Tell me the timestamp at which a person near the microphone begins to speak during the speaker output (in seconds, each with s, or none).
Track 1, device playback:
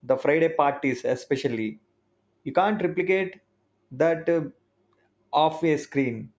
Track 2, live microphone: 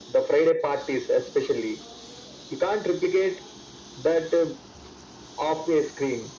none